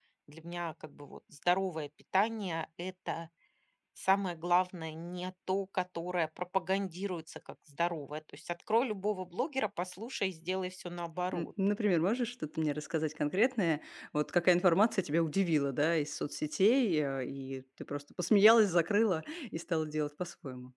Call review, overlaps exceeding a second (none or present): none